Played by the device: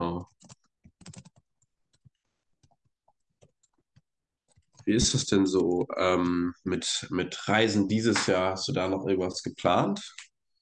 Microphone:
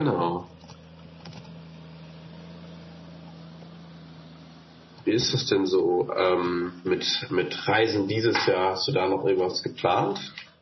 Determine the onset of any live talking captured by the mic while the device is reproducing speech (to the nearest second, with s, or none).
none